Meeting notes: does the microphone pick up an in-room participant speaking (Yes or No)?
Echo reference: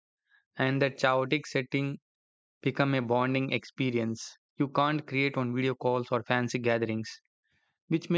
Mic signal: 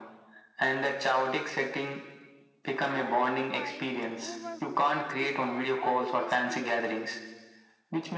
Yes